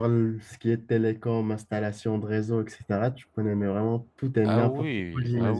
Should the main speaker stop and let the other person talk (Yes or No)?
Yes